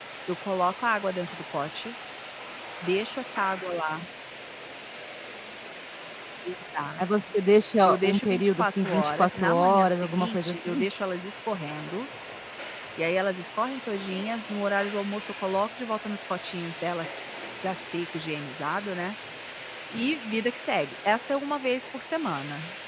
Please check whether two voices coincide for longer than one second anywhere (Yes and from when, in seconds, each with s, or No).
Yes, from 7.8 s